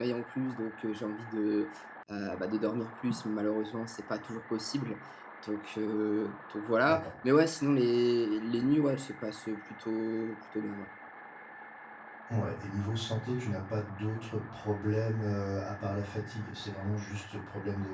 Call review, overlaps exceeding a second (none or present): none